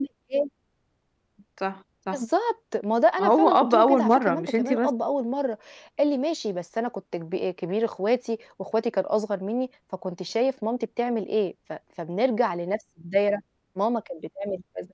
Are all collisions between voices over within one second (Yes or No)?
No